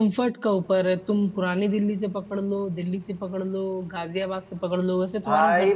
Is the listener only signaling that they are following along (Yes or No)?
No